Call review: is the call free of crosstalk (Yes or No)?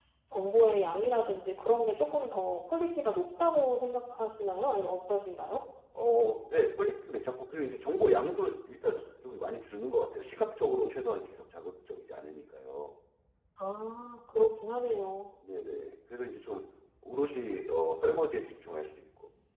Yes